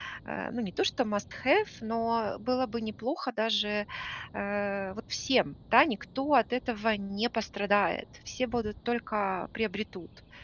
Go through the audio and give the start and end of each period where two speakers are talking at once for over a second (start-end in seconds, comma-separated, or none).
none